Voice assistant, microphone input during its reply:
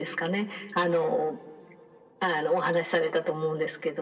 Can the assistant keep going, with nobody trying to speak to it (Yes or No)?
Yes